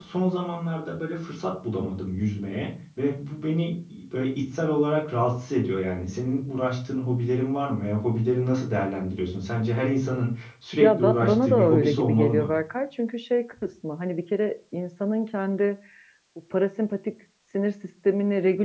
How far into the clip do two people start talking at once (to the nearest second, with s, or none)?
11 s